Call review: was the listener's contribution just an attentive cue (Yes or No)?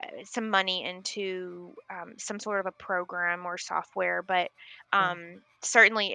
Yes